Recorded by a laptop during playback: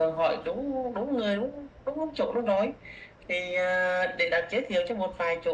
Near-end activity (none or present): none